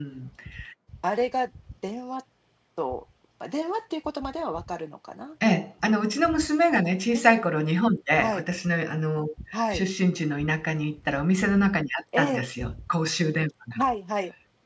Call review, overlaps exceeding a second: none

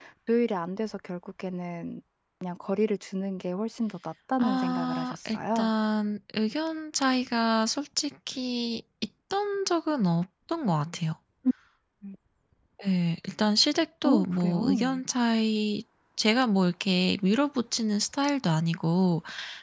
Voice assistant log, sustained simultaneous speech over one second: present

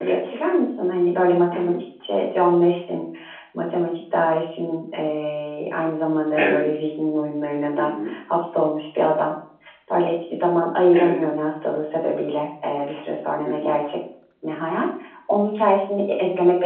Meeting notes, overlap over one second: none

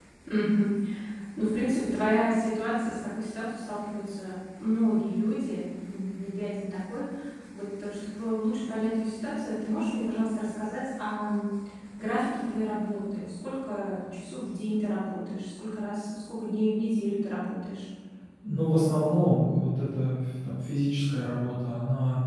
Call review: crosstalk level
none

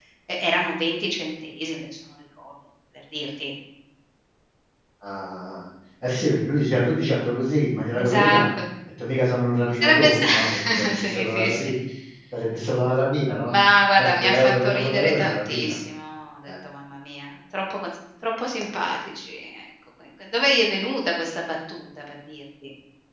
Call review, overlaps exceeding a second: present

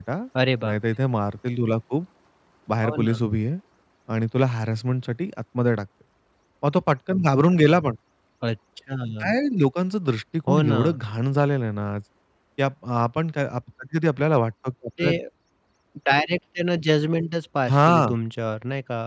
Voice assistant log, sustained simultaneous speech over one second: none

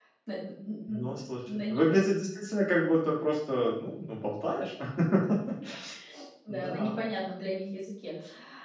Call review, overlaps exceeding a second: none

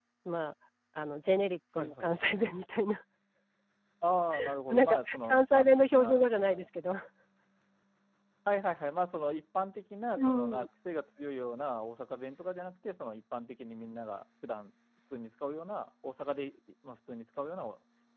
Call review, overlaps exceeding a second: present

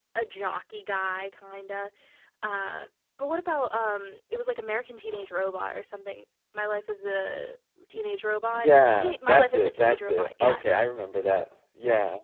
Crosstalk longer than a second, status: present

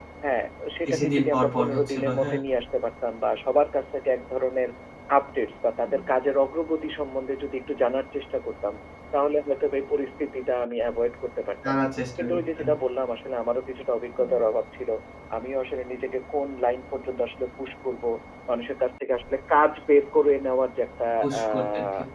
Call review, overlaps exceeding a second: present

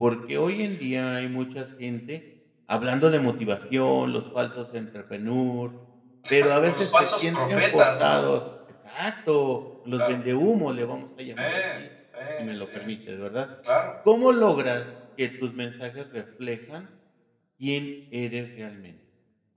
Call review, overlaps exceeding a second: present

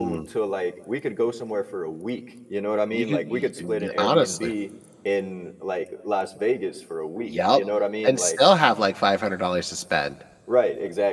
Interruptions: present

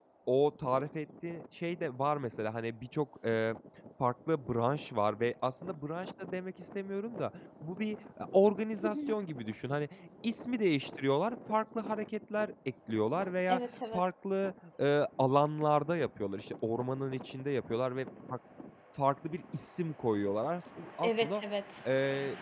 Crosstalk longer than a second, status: none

